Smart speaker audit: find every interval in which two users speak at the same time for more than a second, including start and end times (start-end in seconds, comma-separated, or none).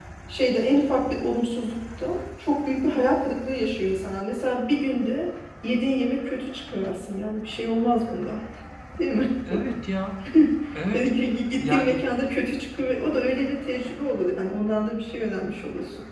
none